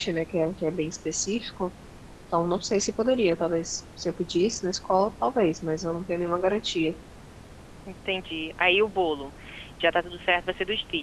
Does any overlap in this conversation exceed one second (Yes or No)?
No